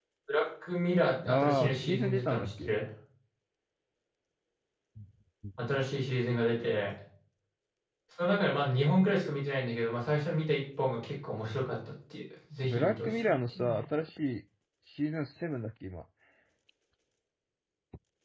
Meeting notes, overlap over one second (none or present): present